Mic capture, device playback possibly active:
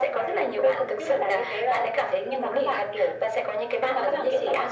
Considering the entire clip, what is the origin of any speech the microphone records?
echo only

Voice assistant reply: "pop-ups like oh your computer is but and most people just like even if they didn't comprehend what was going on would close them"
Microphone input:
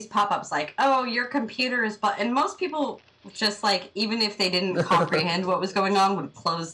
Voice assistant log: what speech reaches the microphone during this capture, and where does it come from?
both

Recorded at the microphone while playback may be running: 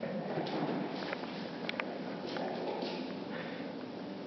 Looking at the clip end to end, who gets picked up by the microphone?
neither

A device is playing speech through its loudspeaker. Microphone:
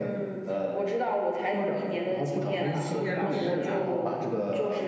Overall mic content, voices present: both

